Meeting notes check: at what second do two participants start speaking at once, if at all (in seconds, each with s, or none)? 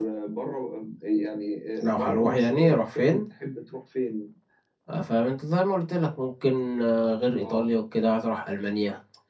1.9 s